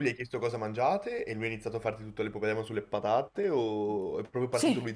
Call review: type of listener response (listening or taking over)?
taking over